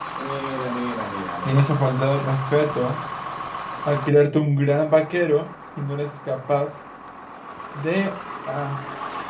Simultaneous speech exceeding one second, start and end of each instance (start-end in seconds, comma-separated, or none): none